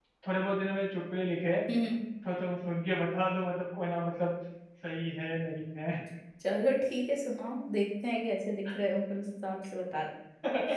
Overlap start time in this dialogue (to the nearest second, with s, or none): none